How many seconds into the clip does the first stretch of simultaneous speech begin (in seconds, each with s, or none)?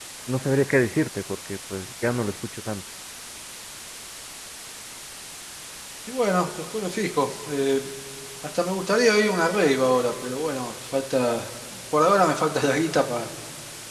none